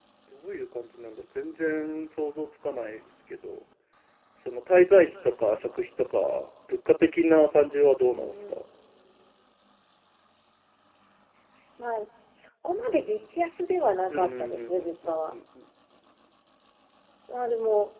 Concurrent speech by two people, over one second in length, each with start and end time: 14.1-15.3

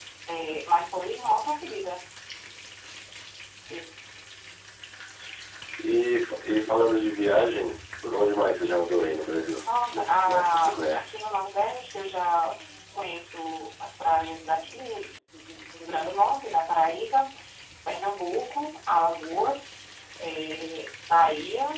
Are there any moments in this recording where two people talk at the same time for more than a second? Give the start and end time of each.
9.8-11.2

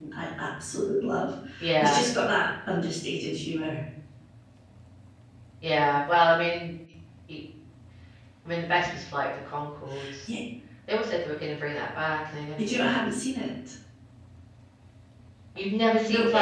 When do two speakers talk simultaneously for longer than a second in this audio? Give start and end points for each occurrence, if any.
none

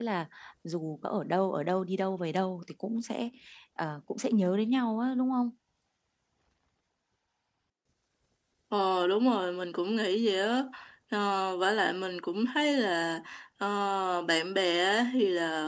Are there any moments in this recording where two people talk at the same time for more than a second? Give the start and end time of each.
none

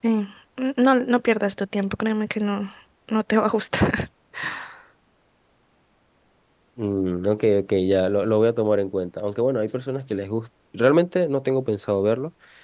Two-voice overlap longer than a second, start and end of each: none

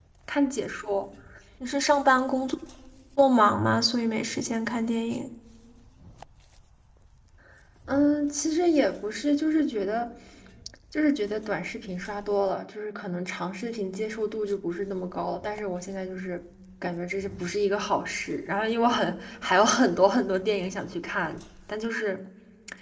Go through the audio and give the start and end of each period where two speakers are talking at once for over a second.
none

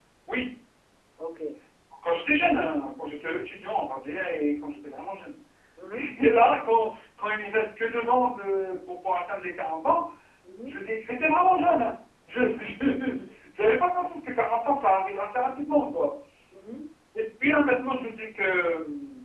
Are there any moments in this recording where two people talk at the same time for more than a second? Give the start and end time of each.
none

